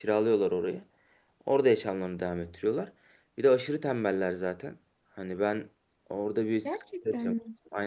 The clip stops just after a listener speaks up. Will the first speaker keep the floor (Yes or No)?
Yes